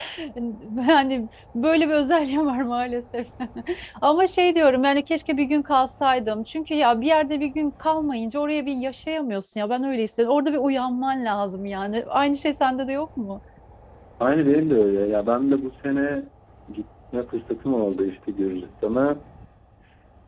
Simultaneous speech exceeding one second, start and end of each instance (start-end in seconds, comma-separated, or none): none